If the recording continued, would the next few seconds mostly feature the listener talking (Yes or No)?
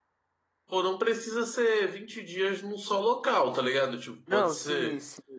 Yes